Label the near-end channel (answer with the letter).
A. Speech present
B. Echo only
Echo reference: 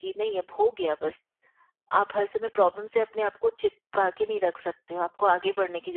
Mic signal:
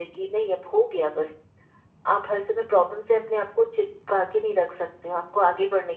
B